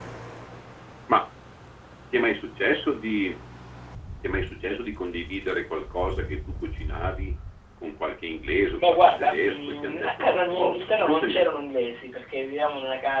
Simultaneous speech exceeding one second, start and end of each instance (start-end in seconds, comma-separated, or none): 8.8-11.6